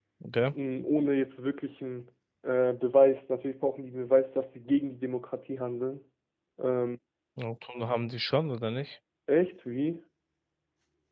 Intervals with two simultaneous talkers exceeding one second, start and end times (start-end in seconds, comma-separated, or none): none